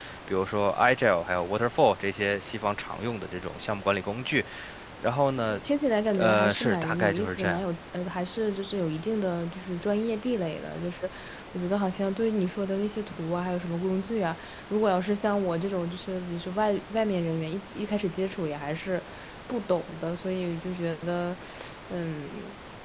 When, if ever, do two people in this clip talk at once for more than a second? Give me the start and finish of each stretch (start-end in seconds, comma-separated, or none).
6.1-7.6